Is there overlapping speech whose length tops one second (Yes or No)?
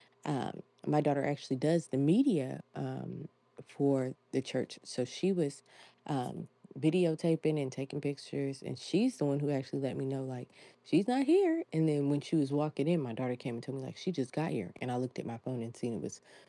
No